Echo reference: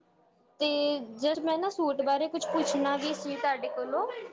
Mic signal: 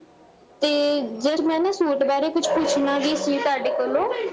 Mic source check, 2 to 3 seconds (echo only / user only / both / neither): echo only